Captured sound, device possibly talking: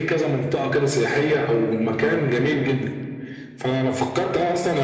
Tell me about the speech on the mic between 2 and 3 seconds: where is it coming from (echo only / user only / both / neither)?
echo only